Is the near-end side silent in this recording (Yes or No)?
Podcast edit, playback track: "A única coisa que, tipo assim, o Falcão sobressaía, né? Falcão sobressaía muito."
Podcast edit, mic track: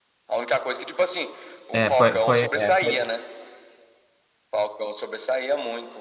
No